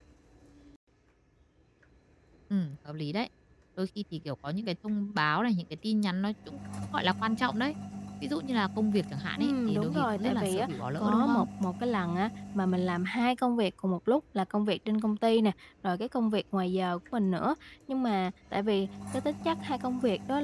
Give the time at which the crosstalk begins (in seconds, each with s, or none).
9.4 s